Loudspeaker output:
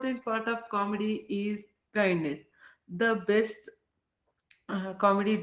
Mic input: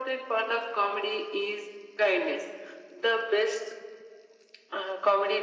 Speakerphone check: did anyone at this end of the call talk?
No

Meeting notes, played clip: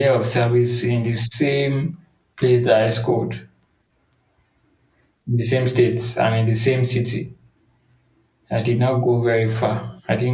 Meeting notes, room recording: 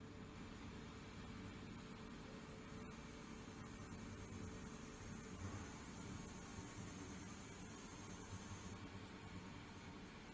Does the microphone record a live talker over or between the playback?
No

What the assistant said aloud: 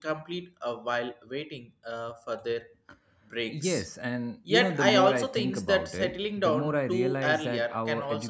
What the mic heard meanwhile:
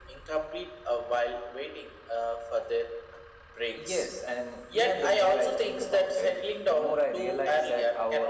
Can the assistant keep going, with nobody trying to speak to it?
Yes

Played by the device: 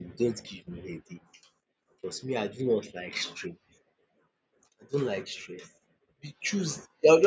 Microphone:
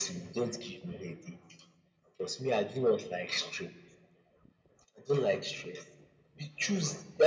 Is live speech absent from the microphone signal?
Yes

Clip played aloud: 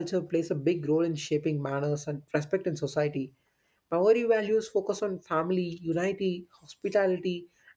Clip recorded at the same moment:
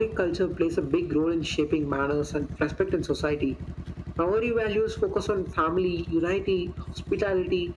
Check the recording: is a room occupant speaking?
No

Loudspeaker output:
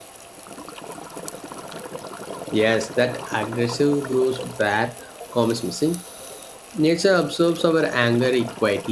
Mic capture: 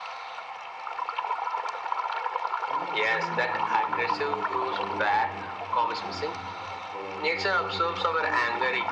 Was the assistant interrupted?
Yes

